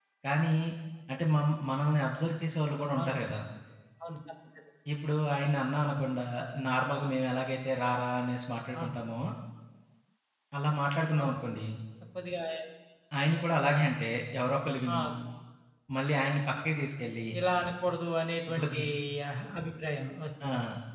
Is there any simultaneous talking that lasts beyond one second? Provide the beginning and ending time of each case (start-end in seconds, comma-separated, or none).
none